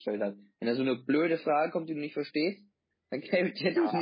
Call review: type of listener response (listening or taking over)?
taking over